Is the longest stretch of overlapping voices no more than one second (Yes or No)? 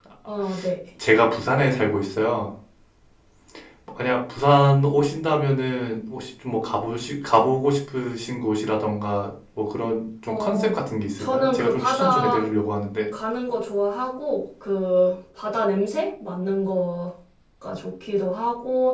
No